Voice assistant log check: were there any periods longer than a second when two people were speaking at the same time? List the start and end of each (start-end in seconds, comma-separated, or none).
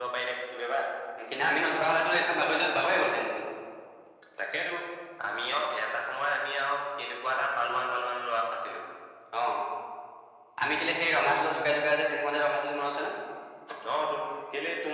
none